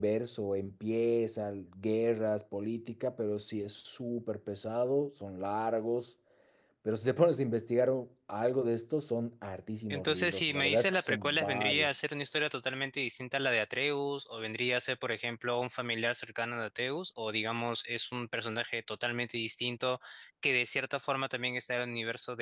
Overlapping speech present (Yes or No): Yes